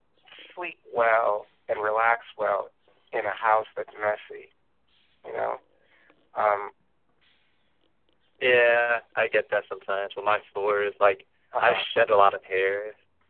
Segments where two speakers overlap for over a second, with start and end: none

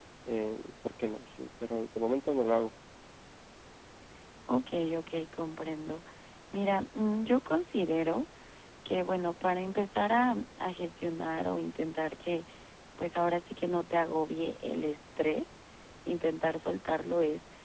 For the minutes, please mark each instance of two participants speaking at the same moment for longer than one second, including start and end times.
none

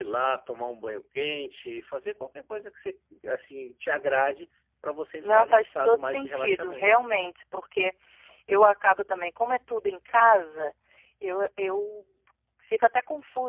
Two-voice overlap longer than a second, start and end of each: 5.2-6.9

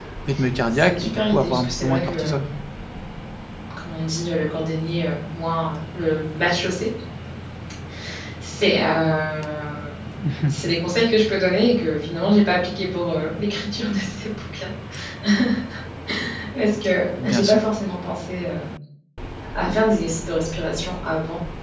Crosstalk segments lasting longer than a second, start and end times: 0.7-2.5

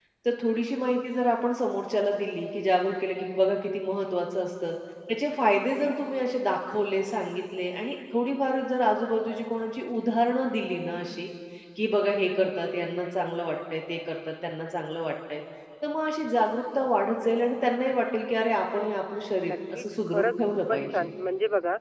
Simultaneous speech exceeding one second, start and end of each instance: 19.4-21.1

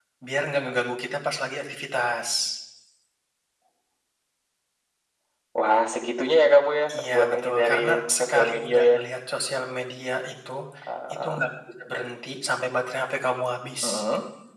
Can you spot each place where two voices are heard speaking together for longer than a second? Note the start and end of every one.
7.0-9.0

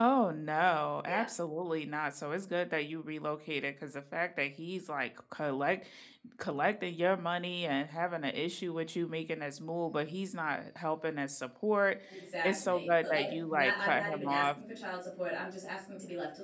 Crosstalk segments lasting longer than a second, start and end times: 12.4-14.6

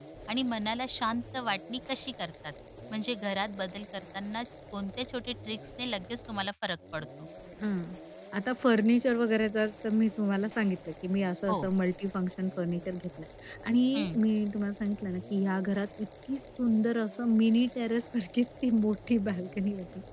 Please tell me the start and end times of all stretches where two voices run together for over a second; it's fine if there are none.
none

